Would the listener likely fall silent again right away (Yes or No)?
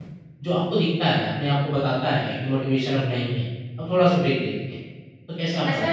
No